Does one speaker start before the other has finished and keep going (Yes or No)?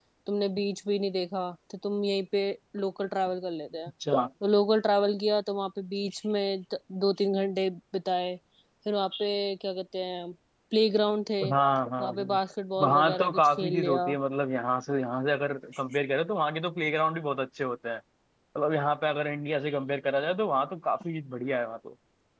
Yes